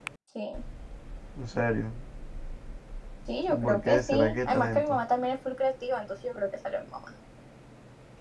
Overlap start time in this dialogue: 3.5 s

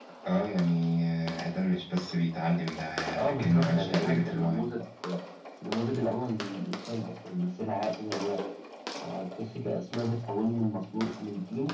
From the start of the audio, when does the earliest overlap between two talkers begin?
3.3 s

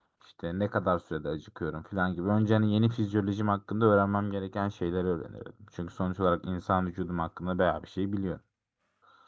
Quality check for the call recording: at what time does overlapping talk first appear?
none

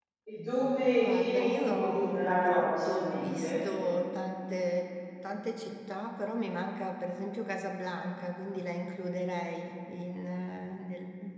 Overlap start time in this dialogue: 1.0 s

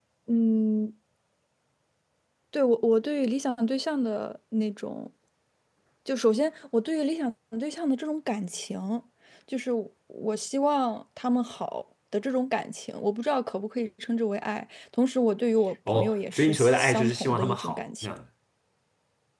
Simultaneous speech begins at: 15.9 s

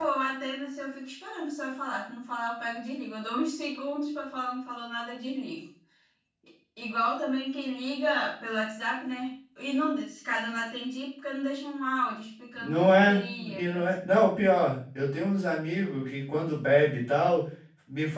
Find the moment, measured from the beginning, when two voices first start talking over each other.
12.5 s

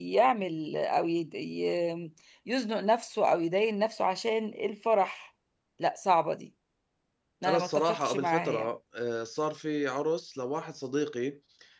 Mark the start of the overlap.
7.5 s

